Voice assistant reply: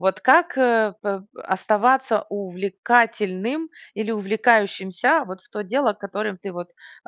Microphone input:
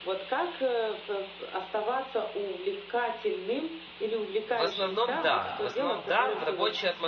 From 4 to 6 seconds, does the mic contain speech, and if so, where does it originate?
both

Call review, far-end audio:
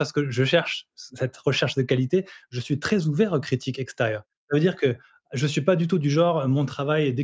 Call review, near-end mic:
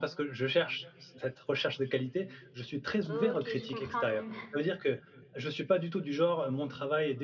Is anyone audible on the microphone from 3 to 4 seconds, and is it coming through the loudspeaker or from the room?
both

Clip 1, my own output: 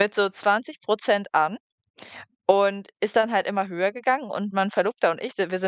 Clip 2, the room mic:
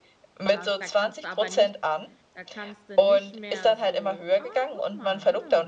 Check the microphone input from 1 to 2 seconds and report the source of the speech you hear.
both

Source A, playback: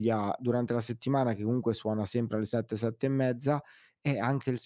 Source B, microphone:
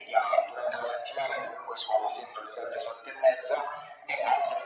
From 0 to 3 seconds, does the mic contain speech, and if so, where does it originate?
echo only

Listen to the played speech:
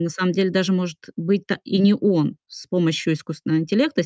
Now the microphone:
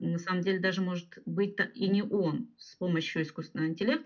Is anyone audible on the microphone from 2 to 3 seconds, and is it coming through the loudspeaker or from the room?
echo only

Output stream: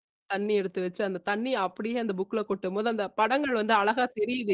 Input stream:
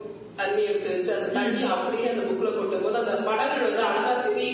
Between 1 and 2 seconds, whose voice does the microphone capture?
both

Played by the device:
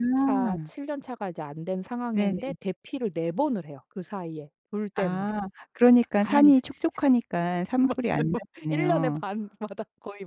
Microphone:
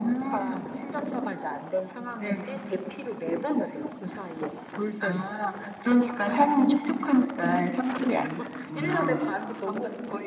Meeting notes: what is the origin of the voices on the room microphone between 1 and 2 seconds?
echo only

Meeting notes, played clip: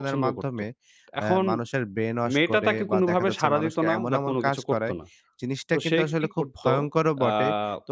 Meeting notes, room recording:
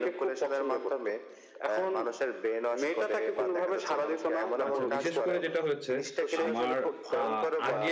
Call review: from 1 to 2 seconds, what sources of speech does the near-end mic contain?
echo only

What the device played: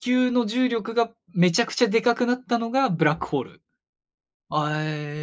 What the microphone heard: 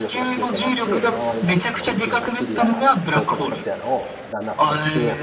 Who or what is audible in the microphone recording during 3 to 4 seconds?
both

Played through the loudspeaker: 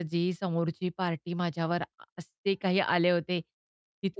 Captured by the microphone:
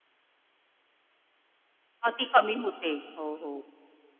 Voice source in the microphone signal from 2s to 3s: user only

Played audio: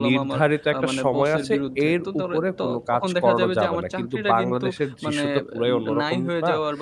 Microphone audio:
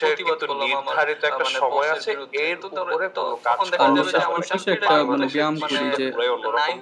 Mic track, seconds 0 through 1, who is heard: echo only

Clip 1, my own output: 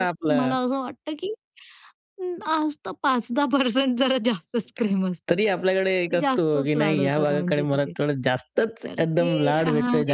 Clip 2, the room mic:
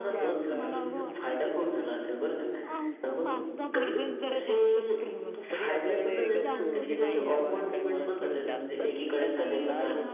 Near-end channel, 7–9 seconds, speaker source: both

